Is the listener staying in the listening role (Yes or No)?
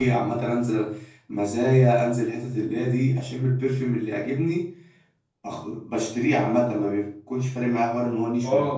No